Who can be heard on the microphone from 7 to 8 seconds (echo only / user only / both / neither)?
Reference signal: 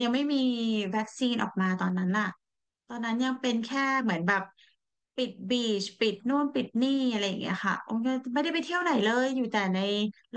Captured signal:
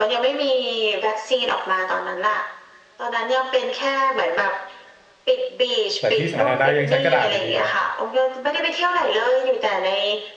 both